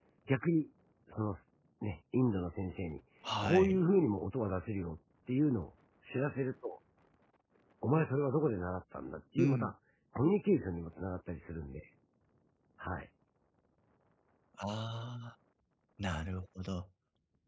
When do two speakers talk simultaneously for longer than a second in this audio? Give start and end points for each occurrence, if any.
none

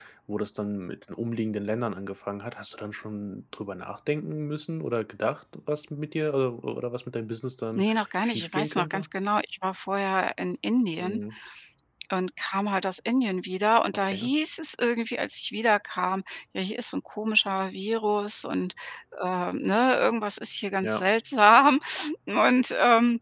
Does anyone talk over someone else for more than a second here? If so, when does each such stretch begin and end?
7.8-9.1

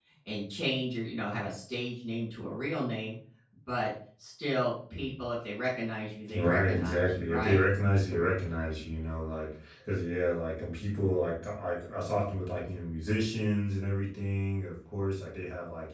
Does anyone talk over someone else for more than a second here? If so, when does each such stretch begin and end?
6.3-7.6

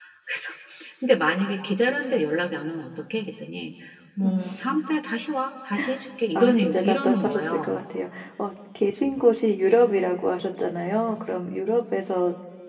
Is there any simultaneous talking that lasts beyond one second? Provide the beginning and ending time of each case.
6.4-7.8

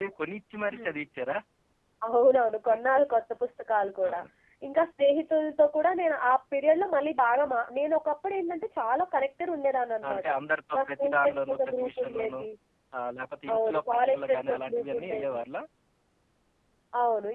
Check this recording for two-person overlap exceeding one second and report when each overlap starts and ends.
10.8-12.4, 13.5-15.4

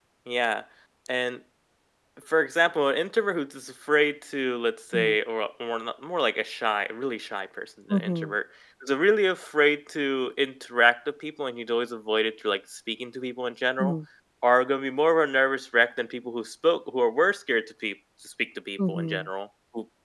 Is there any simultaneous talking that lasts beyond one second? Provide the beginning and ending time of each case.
none

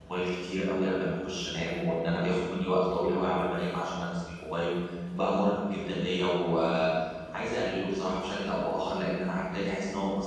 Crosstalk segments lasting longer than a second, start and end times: none

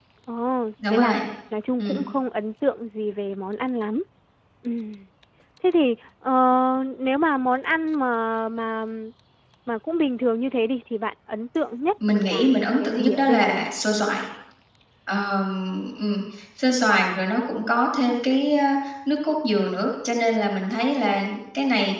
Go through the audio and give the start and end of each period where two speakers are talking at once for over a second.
12.2-13.7

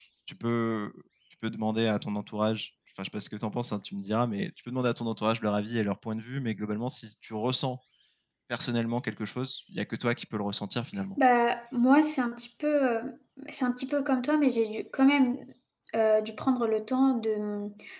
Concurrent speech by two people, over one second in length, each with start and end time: none

